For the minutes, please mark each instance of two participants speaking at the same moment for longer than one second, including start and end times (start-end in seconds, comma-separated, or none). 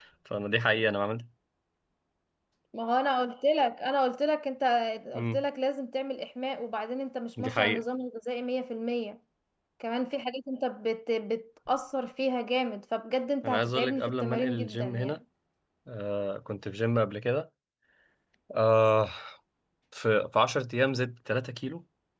13.4-15.2